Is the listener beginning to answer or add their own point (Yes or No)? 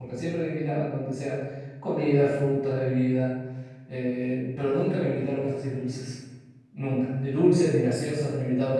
No